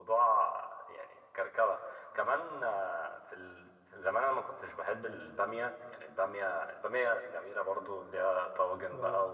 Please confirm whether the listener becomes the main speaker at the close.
No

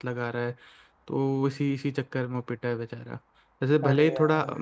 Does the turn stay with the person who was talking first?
Yes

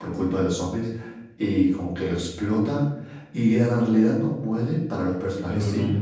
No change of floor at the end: No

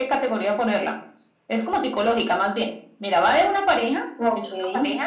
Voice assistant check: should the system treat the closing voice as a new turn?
No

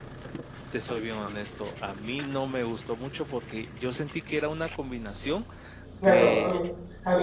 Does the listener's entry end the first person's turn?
Yes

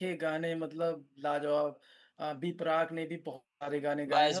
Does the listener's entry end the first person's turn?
Yes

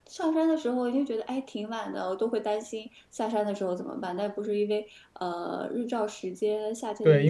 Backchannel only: No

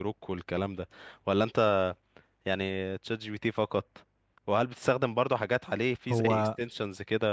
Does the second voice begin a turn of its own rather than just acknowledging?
No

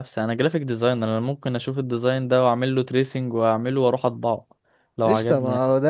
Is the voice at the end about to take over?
Yes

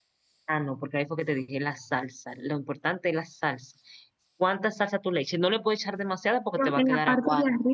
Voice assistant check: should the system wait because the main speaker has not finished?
No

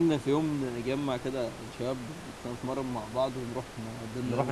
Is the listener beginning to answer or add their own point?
Yes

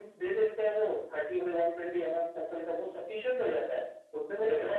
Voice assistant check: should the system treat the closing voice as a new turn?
No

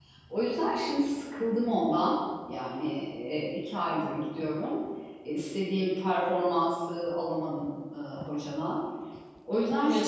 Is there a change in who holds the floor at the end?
Yes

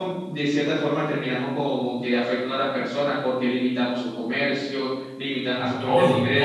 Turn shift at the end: Yes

